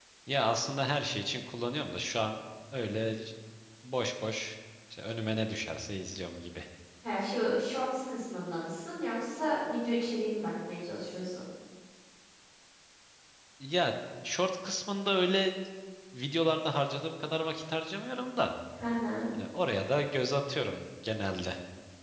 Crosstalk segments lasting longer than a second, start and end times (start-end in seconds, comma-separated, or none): none